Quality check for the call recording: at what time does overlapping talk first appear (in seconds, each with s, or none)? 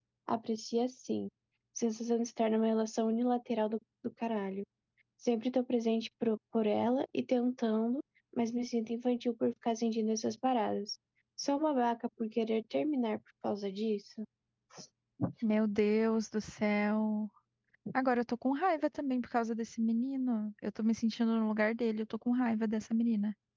none